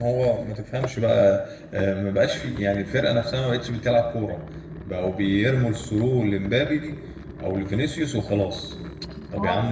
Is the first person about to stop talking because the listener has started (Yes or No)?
No